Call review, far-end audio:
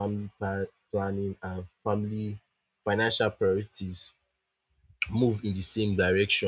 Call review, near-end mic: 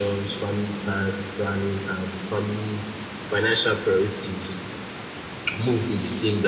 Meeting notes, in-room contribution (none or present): none